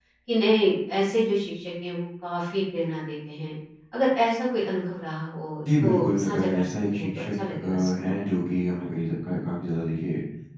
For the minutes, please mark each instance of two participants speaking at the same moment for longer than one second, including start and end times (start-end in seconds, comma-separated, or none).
5.8-8.2